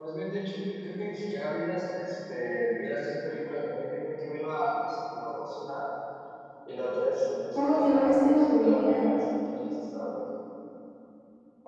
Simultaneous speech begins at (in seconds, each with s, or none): 7.5 s